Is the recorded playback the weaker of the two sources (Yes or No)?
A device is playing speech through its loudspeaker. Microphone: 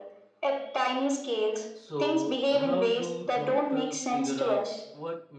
No